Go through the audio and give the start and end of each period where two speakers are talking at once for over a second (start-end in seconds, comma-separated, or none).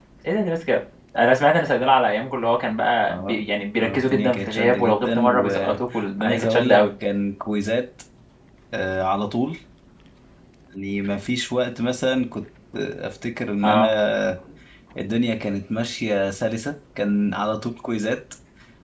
3.8-6.8